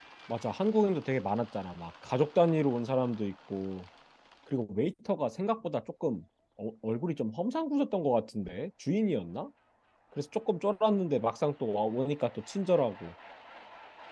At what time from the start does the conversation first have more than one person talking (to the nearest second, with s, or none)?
none